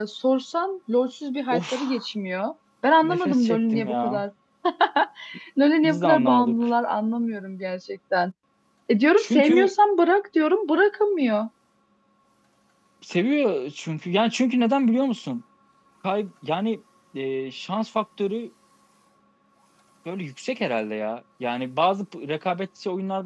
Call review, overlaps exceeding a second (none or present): present